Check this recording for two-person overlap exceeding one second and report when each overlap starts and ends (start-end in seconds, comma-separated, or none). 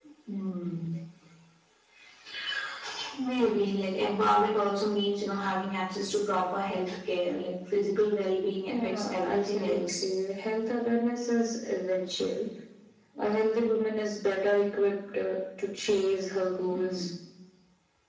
8.7-10.0